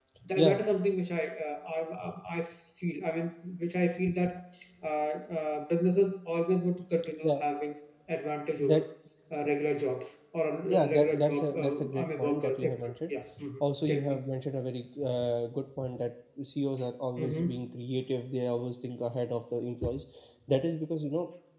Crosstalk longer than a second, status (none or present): present